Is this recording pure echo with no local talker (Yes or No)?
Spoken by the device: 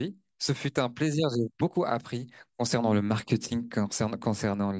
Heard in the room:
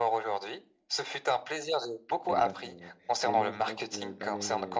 No